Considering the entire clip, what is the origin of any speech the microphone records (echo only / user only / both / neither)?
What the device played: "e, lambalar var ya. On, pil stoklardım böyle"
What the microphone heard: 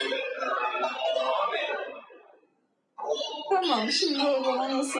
both